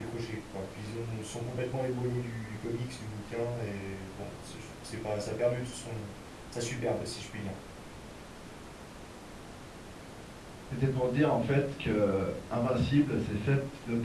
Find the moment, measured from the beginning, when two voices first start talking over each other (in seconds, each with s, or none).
none